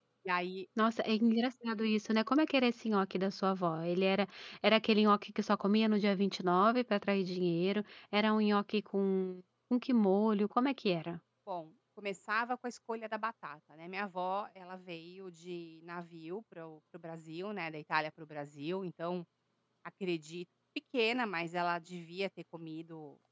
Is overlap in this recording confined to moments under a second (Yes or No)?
Yes